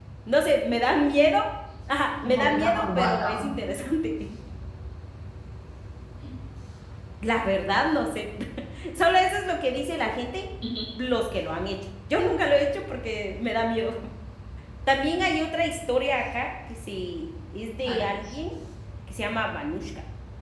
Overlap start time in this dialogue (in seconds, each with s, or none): 2.2 s